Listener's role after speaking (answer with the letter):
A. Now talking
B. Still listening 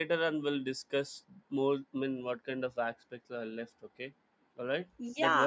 A